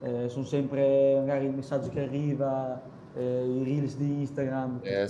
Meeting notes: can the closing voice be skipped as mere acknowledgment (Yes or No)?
No